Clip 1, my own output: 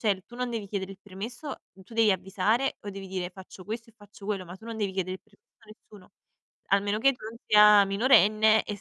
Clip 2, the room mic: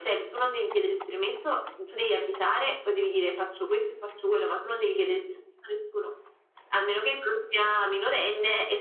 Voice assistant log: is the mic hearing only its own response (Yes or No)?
Yes